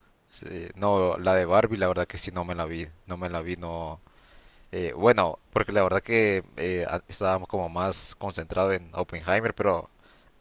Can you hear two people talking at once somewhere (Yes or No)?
No